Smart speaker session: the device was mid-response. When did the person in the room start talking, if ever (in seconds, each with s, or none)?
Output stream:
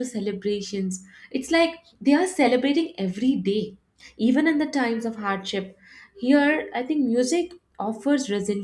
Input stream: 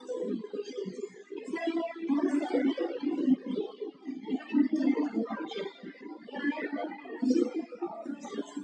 none